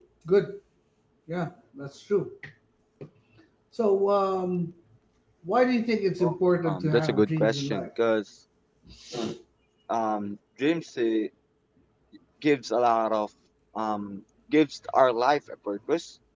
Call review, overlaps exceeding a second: present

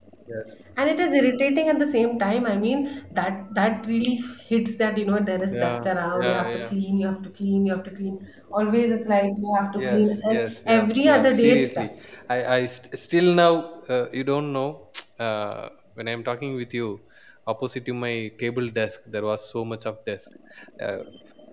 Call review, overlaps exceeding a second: present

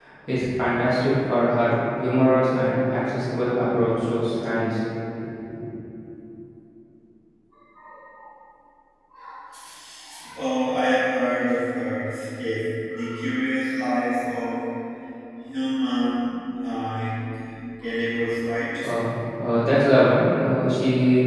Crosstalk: none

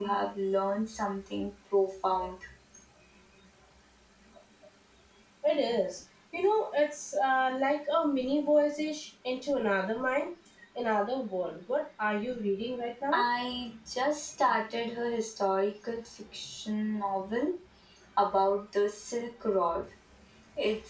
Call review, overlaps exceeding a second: none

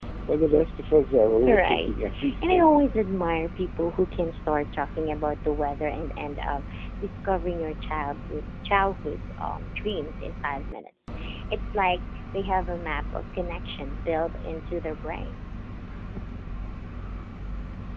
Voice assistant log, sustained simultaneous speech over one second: present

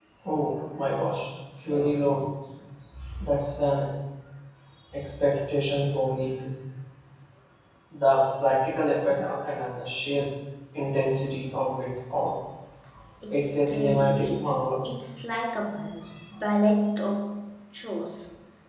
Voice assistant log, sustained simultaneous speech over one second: present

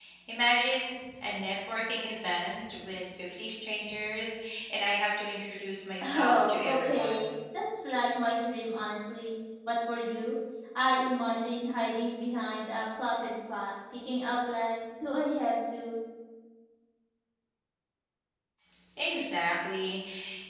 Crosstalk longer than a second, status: present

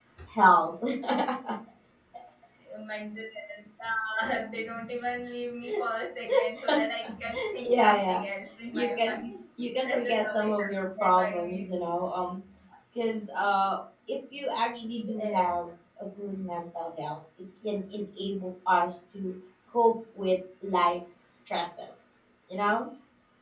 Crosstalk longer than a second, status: present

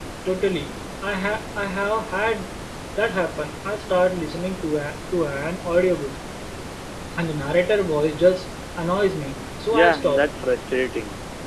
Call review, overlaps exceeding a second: none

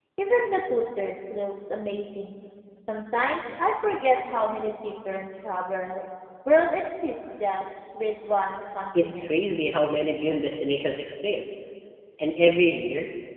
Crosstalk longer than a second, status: none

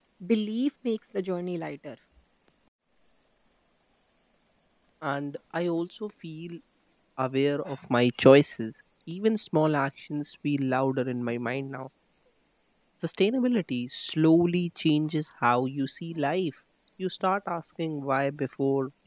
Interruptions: none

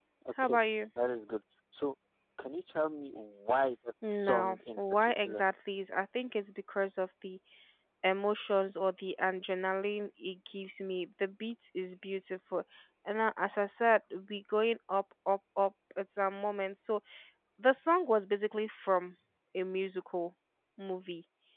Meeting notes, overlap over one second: present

